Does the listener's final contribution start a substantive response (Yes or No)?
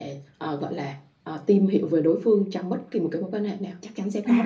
Yes